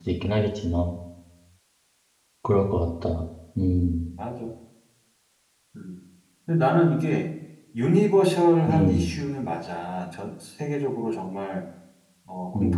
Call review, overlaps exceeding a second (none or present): none